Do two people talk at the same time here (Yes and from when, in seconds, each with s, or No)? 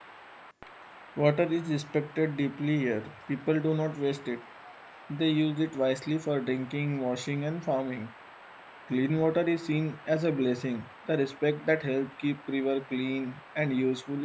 No